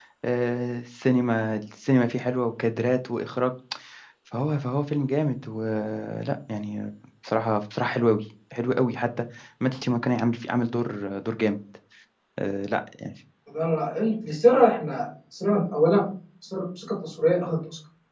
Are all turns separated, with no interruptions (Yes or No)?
Yes